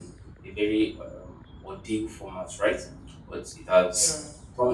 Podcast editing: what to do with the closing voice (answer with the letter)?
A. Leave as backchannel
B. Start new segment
A